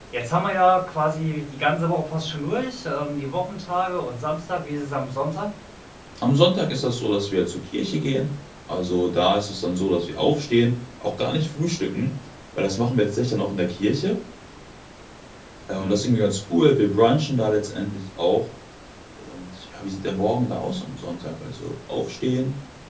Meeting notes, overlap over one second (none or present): none